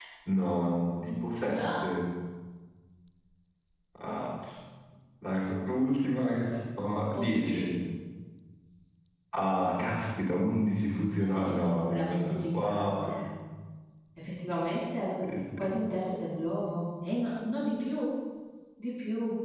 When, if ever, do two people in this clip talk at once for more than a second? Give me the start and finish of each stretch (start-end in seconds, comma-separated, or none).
11.2-12.9